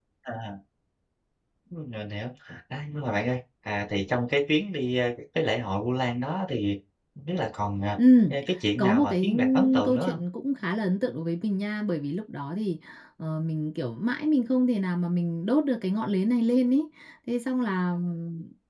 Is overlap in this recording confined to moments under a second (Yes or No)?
No